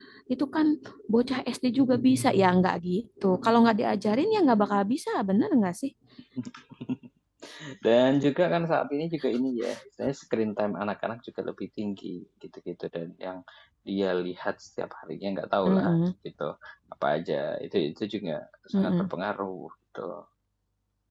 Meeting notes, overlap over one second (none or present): none